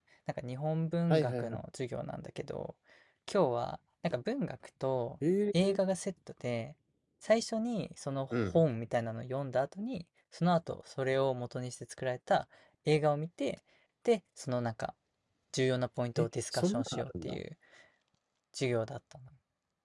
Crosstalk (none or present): present